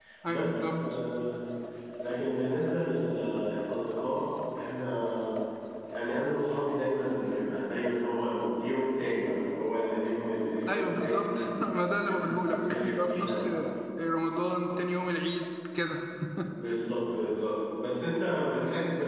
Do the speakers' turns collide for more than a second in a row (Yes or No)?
Yes